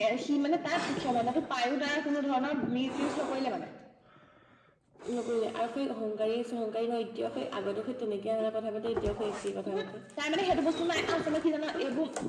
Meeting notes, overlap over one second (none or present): none